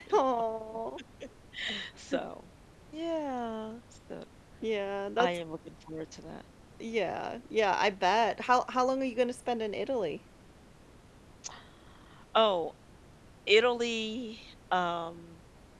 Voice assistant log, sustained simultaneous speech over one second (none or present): none